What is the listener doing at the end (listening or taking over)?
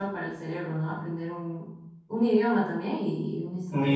taking over